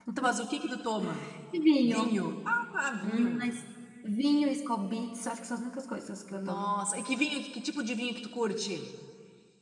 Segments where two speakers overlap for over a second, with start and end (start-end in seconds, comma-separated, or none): none